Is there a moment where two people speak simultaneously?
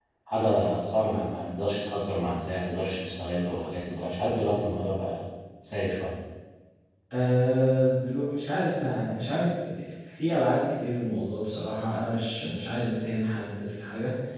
No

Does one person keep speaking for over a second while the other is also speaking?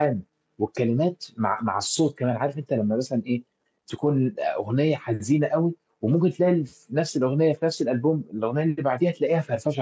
No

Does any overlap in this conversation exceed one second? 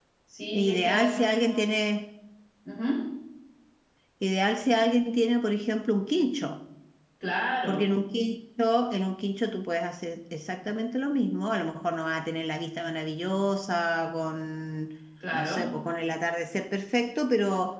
Yes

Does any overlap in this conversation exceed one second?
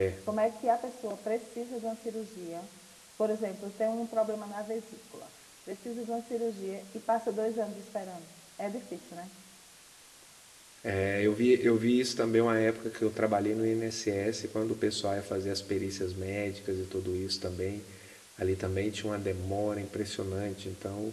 No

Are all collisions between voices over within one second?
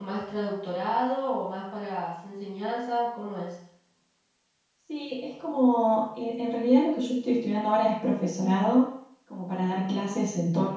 Yes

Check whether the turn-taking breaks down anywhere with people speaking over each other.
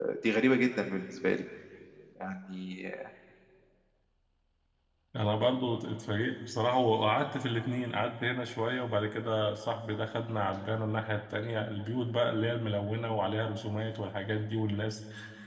No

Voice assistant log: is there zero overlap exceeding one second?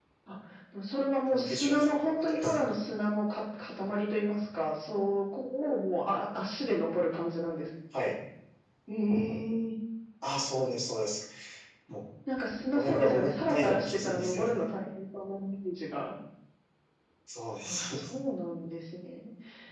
No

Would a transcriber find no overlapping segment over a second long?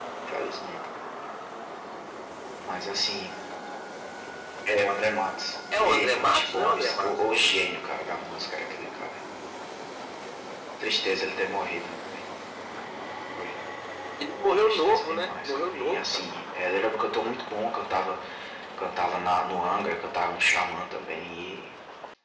No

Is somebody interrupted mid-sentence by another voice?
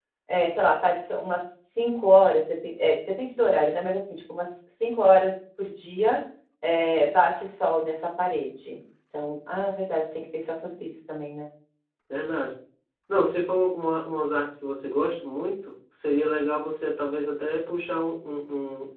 No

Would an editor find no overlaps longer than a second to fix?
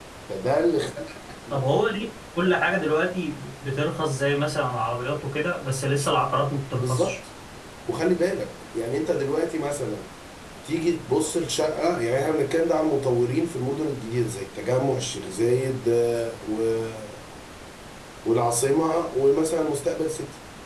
Yes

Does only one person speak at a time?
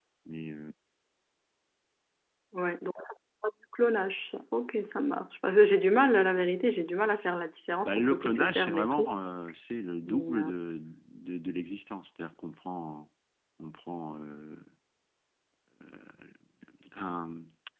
No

